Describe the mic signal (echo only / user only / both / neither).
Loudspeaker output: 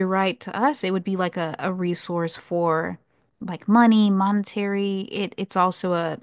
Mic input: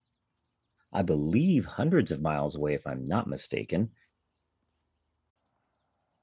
user only